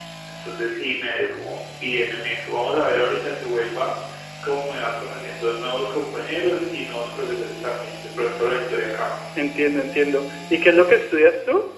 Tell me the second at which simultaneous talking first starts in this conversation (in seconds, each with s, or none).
none